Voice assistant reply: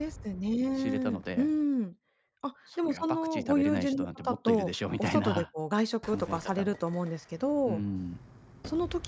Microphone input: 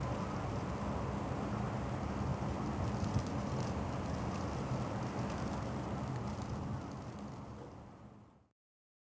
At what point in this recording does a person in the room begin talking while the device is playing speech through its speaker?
none

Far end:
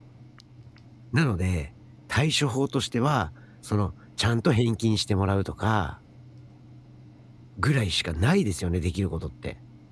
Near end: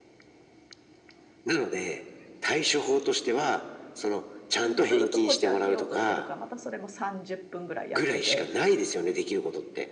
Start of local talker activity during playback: 4.6 s

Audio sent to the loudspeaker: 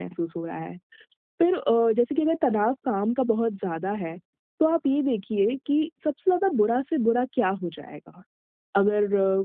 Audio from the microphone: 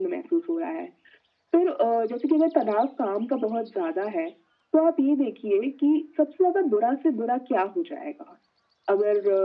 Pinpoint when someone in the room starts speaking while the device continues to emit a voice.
none

